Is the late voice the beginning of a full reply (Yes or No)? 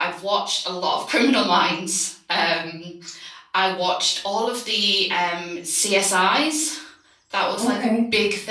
No